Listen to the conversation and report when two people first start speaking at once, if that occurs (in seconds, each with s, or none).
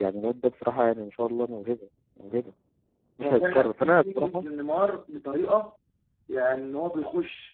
3.2 s